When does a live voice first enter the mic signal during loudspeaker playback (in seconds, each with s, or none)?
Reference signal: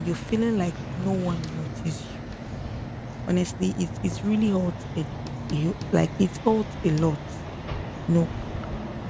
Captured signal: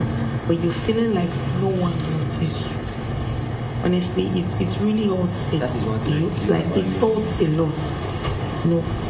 5.6 s